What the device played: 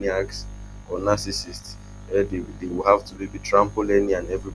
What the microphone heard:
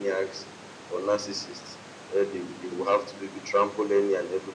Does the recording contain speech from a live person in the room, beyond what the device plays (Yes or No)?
No